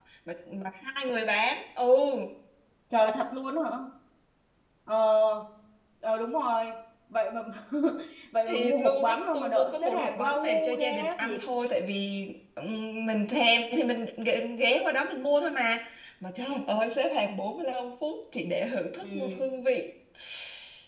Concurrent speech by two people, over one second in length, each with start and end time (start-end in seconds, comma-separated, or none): 8.5-11.4